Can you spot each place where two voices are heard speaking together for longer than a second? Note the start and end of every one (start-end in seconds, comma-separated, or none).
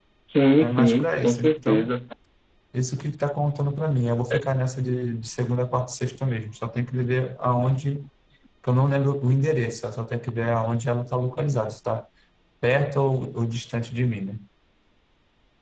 0.6-1.9